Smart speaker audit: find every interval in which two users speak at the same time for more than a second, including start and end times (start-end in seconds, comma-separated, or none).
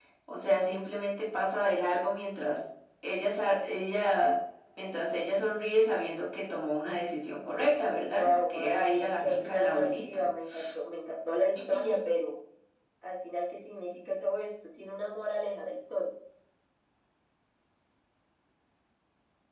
8.1-10.2